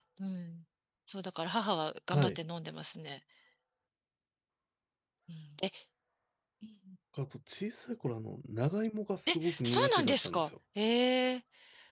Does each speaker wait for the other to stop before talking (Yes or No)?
No